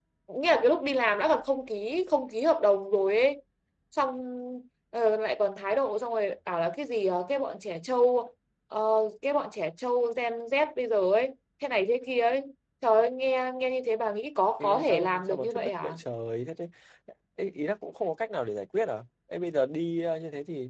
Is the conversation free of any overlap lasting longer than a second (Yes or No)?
No